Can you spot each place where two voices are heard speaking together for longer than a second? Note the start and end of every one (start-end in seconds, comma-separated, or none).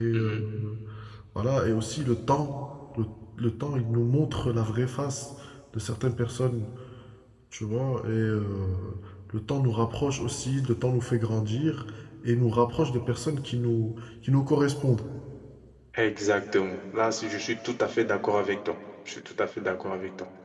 none